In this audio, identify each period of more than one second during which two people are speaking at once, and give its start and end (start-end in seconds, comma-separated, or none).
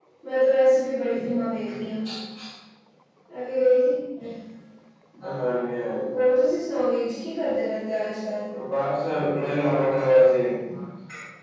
none